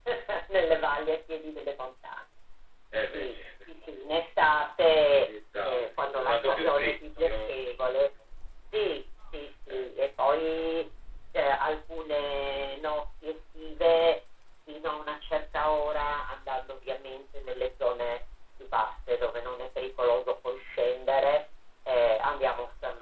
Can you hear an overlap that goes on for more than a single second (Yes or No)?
Yes